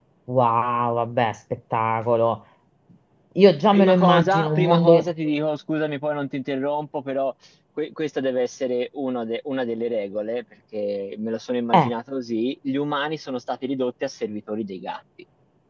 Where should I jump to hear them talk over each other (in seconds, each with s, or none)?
3.7 s